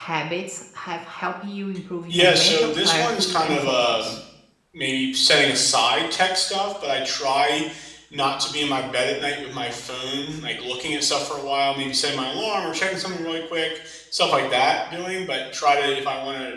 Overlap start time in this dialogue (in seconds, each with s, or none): 2.1 s